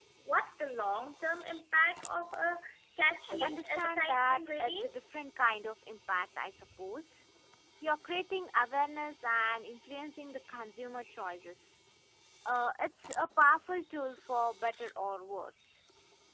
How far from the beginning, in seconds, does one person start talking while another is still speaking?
3 s

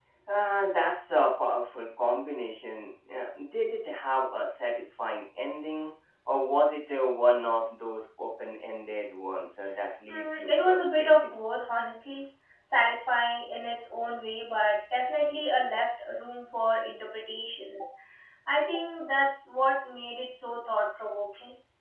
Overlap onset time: 10 s

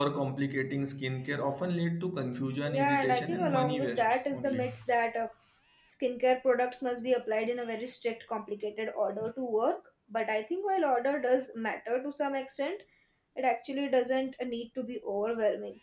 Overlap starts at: 3 s

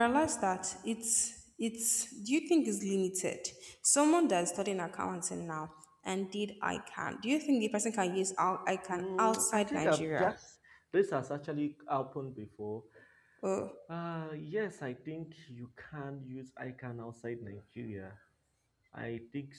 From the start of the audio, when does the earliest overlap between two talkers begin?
9 s

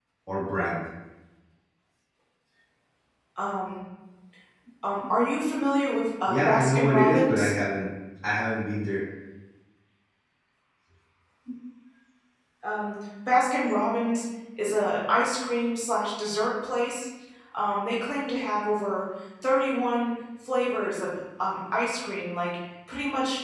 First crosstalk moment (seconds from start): 6 s

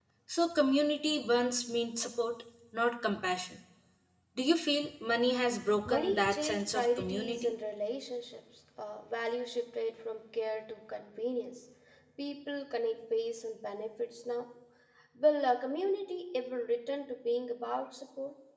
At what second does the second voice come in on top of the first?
6 s

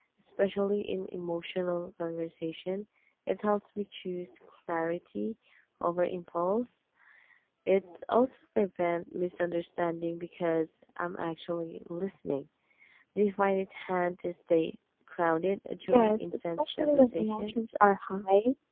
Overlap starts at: 16 s

